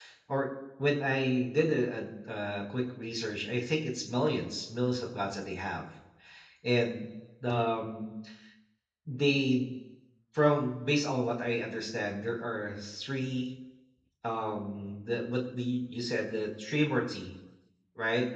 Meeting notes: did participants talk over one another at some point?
No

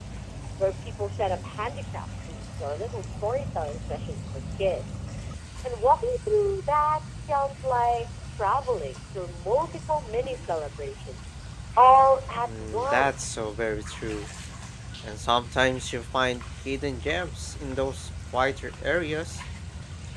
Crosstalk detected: Yes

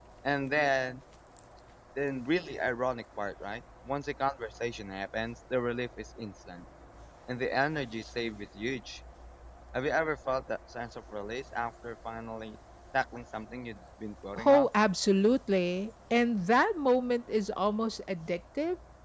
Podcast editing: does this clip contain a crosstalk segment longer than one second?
No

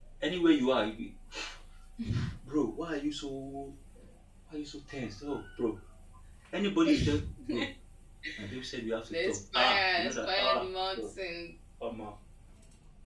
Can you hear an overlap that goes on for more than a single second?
Yes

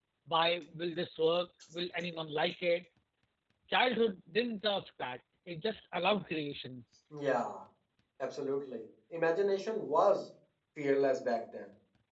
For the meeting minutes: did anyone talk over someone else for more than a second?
No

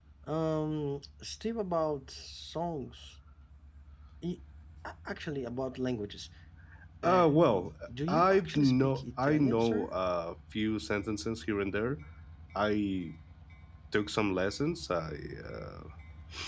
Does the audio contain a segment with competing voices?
Yes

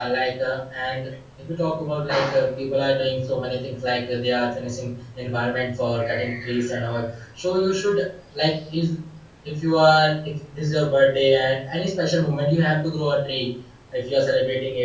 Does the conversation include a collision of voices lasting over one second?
No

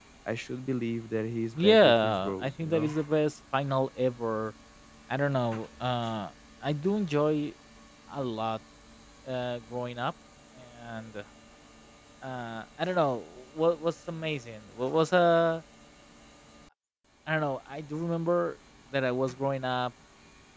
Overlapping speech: Yes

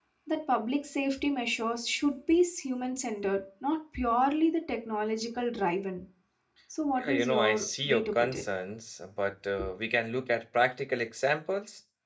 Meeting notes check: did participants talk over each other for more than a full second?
Yes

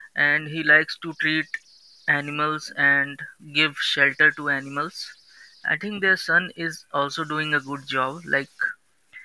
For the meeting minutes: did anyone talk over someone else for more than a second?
No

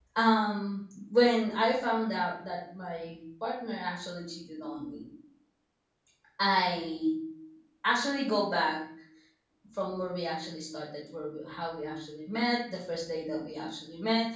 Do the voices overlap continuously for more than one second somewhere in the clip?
No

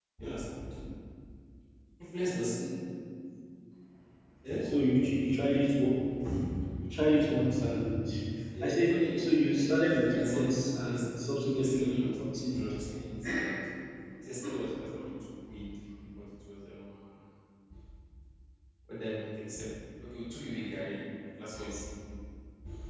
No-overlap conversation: No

